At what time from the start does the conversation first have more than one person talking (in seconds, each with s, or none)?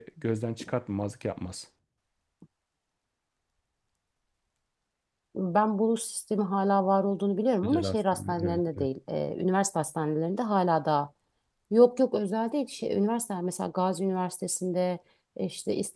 7.6 s